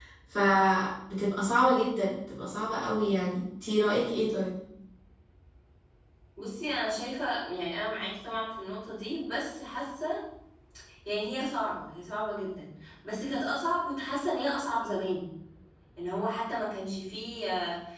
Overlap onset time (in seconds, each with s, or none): none